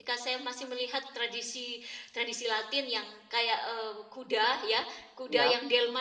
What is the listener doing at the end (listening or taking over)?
listening